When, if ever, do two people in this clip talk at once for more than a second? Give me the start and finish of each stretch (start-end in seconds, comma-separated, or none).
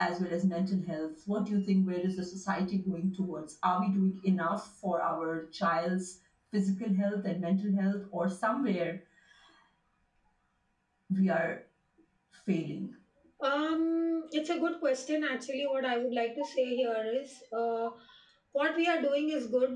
none